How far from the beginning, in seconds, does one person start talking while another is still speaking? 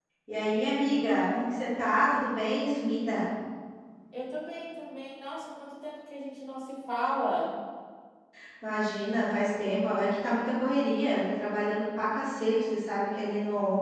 none

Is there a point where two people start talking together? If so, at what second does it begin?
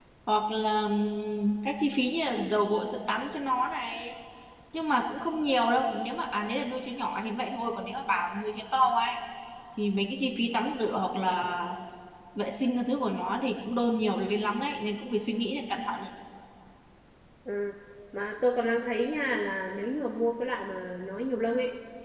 none

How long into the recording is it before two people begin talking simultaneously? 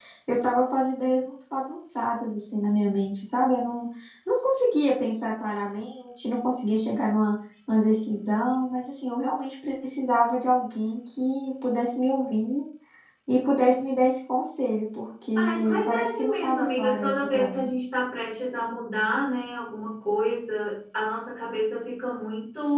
15.4 s

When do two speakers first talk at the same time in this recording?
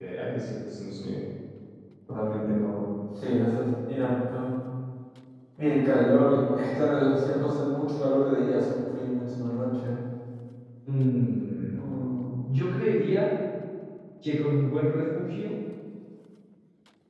none

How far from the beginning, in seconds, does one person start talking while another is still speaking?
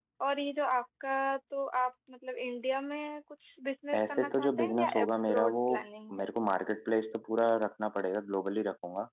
3.9 s

